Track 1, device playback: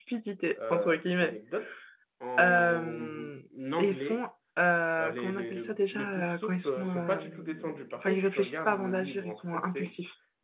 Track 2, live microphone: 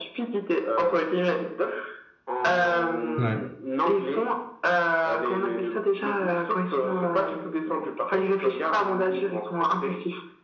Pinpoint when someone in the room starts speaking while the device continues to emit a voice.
3.2 s

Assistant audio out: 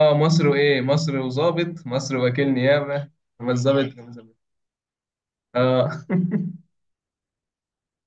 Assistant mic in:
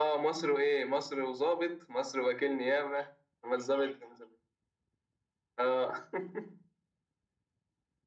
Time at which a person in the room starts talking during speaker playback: none

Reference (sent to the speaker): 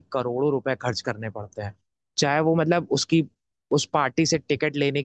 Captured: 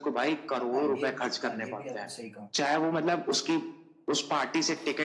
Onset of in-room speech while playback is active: 0.6 s

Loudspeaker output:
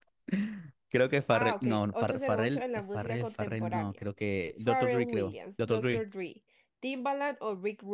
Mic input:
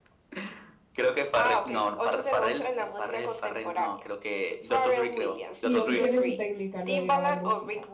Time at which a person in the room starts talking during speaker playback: 5.5 s

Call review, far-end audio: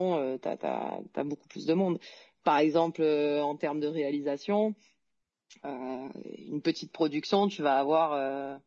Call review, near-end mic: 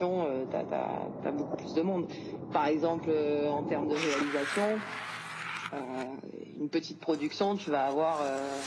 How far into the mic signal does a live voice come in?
none

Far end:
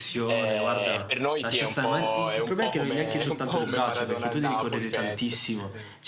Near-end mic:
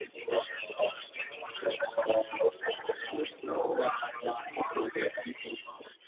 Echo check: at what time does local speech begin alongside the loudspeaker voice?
none

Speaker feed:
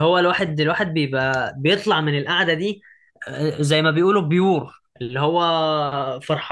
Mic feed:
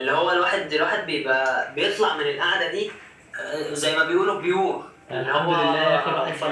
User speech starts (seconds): 5.1 s

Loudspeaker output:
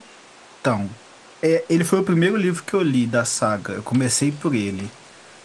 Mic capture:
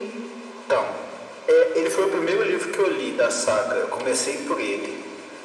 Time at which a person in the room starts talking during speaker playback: none

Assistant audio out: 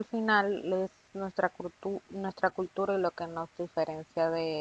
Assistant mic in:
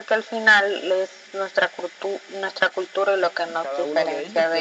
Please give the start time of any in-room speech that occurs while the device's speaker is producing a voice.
3.4 s

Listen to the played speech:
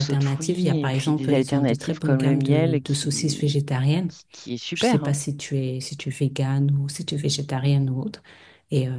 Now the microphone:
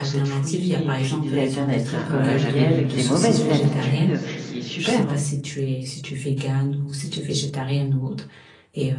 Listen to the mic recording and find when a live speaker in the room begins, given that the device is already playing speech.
1.9 s

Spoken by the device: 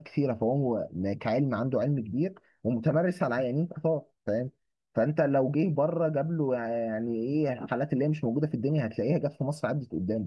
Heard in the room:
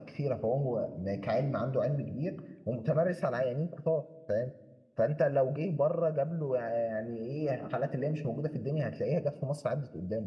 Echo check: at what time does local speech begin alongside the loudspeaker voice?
none

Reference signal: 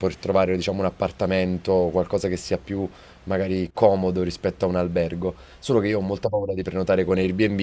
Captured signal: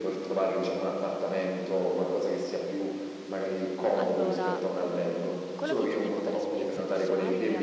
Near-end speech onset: 4.0 s

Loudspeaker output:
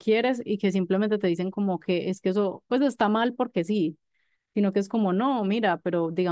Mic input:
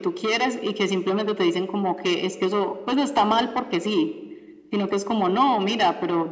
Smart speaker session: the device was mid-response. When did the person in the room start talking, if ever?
none

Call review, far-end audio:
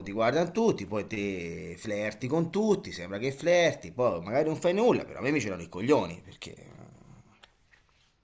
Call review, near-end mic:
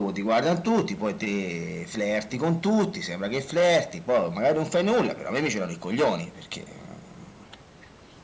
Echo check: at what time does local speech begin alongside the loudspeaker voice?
none

